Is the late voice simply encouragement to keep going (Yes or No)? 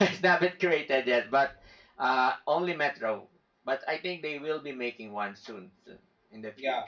No